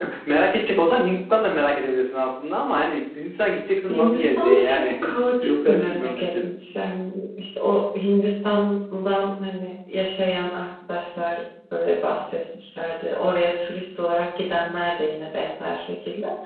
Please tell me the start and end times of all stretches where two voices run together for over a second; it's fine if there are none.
3.9-6.2

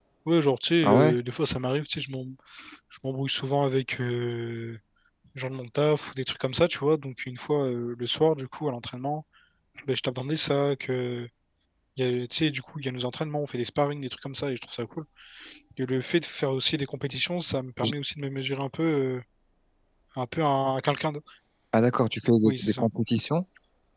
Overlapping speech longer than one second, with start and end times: none

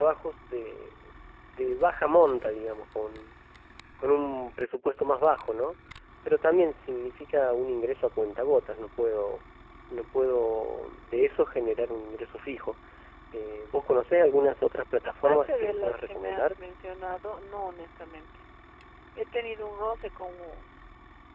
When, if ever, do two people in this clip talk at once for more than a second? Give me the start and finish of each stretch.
15.0-16.5

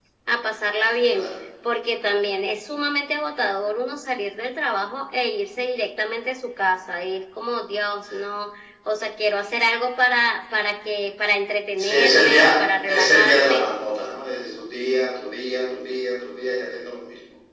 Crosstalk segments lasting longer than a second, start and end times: 11.8-13.7

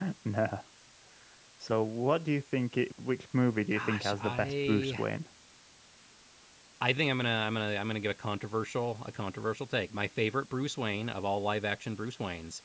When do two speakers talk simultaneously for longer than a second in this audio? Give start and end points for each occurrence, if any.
3.7-5.0

